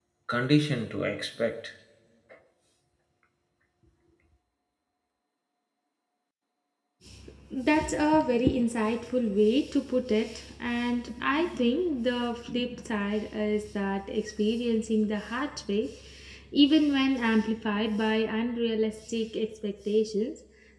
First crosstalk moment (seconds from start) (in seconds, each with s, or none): none